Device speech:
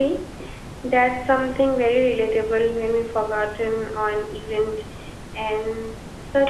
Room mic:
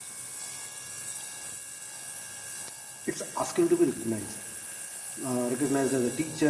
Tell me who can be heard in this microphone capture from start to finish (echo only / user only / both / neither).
user only